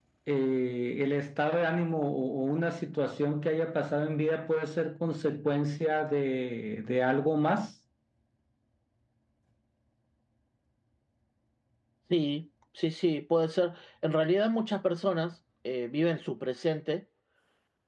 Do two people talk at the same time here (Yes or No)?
No